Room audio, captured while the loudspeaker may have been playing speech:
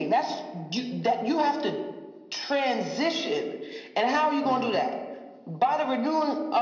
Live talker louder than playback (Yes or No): No